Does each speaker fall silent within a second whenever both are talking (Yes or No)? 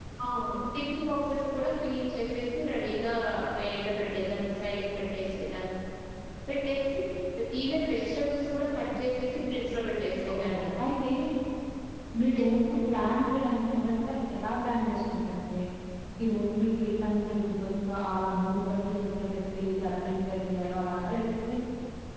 Yes